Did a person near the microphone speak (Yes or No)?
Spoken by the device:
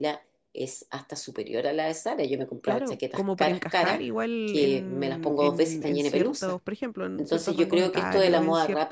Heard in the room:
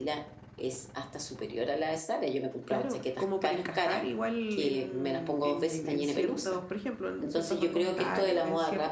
No